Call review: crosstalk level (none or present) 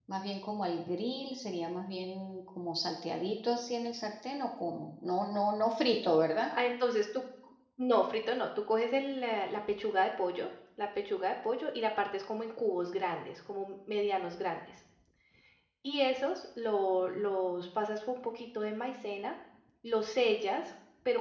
none